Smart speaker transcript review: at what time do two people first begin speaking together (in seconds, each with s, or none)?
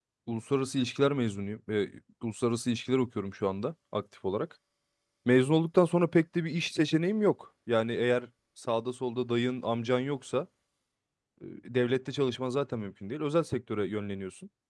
none